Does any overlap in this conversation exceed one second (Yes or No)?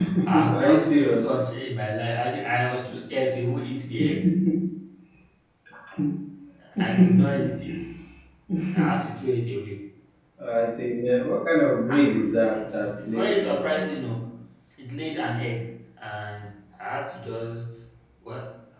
Yes